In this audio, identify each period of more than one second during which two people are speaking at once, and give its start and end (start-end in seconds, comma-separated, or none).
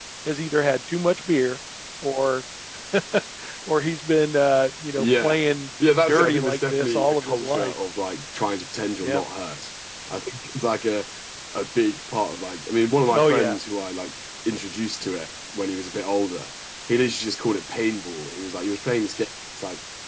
6.1-7.7